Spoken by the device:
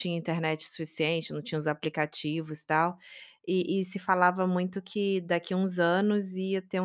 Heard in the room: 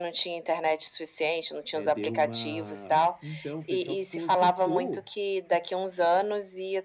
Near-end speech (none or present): present